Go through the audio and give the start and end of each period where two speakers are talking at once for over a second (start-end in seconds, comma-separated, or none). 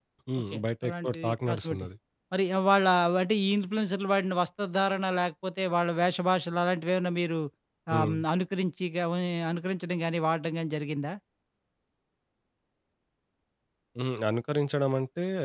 0.5-1.9